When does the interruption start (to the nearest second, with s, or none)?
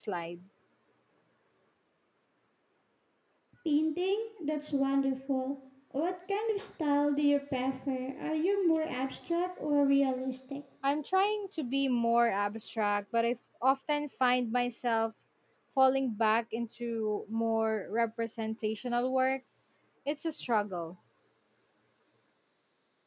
none